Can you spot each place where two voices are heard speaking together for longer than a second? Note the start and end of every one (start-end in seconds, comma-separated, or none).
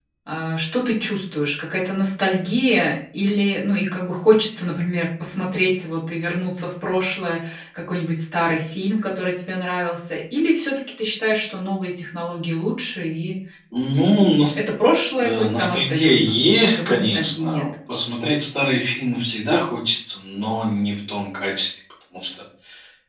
15.2-17.6